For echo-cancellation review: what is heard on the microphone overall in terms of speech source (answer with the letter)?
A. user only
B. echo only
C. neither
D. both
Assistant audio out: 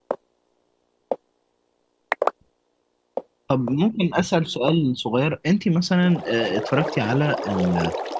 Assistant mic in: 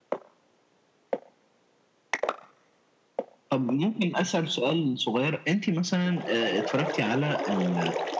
B